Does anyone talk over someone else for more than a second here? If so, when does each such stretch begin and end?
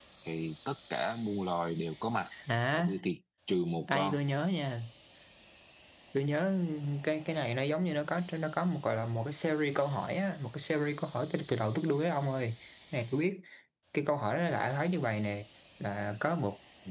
none

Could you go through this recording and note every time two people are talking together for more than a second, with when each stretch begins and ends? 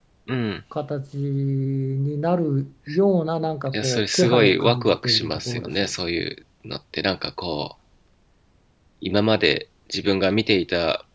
3.7-5.9

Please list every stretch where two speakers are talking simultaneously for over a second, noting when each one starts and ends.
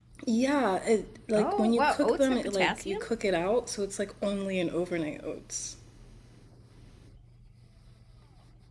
1.4-3.0

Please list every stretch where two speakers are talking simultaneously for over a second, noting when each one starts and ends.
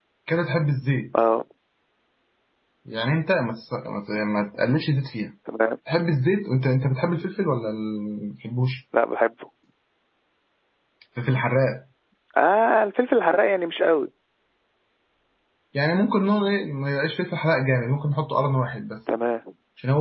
none

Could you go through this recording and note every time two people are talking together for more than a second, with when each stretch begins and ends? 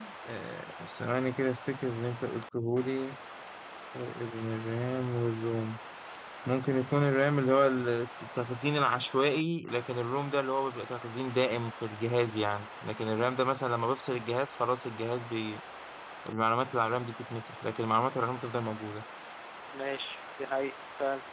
none

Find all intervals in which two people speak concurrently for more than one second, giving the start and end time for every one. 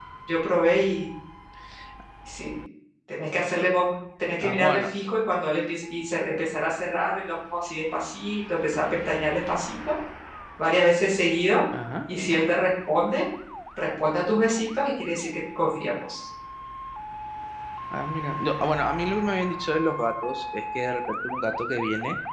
none

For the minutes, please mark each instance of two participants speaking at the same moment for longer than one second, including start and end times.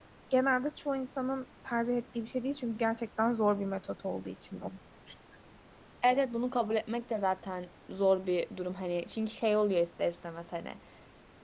none

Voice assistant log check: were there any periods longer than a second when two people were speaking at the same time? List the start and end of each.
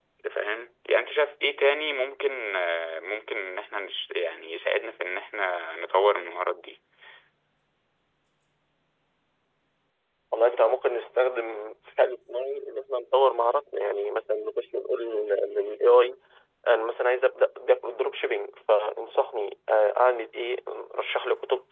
none

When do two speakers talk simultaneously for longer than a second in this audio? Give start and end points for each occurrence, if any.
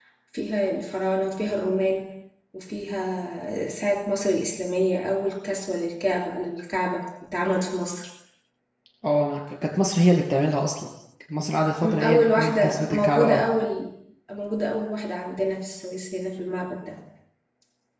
11.8-13.4

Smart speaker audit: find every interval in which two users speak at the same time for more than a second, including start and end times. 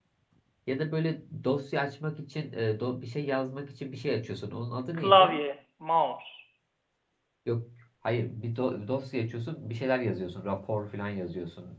none

